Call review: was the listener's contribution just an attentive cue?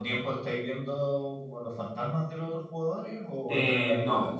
No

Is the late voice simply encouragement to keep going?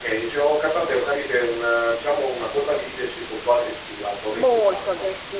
No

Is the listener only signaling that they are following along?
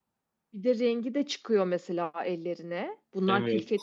No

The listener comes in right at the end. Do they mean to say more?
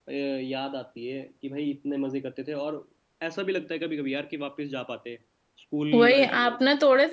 Yes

